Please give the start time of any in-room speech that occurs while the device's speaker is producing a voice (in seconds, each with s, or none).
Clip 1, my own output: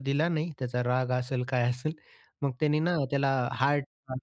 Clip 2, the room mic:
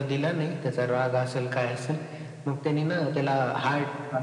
none